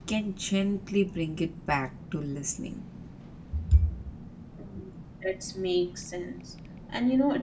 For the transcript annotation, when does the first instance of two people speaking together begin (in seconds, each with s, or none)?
none